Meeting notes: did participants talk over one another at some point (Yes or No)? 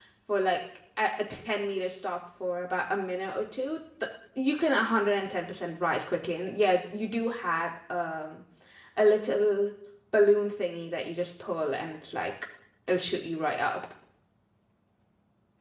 No